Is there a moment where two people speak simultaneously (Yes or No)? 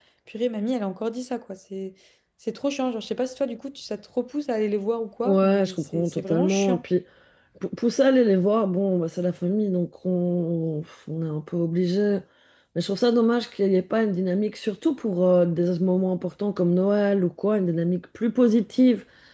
Yes